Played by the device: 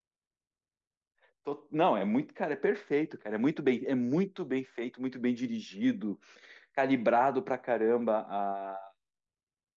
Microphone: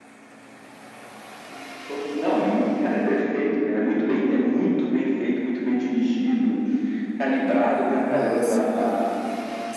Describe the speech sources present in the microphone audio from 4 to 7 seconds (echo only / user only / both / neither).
echo only